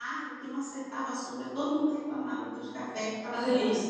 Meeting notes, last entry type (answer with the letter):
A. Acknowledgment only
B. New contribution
A